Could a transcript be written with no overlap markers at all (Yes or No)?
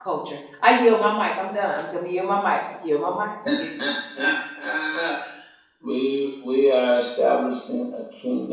Yes